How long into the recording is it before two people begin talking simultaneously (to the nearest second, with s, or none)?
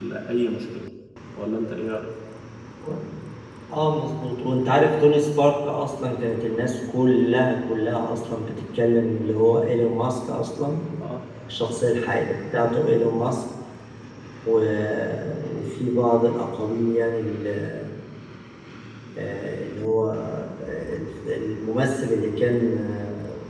none